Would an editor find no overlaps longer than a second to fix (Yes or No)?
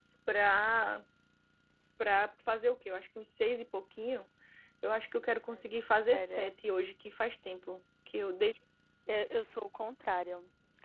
Yes